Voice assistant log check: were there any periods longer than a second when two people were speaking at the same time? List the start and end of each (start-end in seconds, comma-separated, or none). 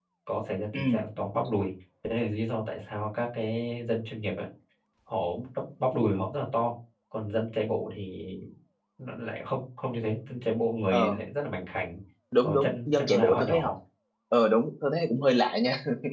12.4-13.7